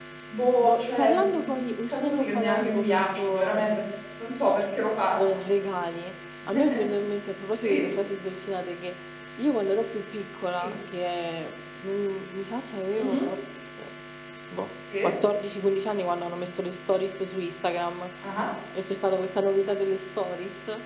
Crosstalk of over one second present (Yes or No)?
Yes